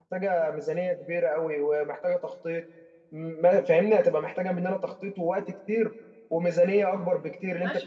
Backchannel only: No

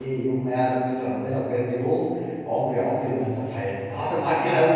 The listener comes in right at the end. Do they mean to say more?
Yes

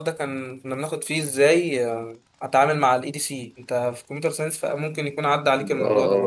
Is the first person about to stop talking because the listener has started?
Yes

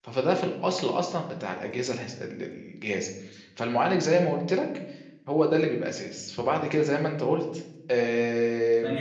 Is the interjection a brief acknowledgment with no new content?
No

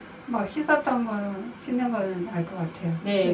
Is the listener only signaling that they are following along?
No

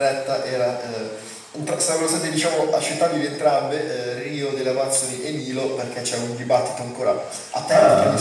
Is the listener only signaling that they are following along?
Yes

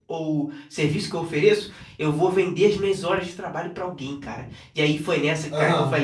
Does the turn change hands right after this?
No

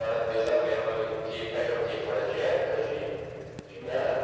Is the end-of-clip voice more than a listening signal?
Yes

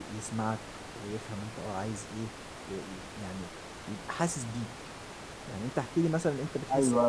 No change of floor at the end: No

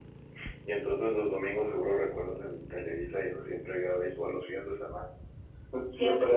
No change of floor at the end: Yes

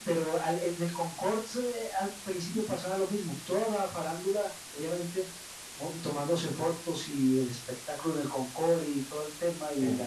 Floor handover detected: No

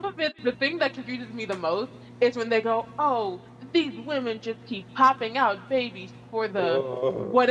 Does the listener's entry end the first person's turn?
No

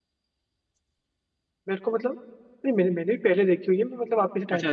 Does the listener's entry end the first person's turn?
No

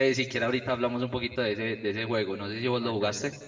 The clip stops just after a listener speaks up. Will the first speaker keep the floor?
No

